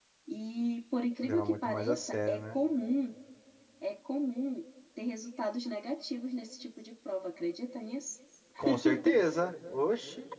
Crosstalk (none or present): present